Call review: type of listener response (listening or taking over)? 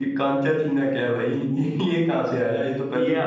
taking over